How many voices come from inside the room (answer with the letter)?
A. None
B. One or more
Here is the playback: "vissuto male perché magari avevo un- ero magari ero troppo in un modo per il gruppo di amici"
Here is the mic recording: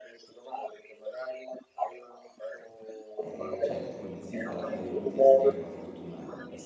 B